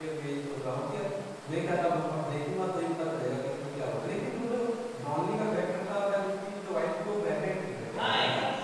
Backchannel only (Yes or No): No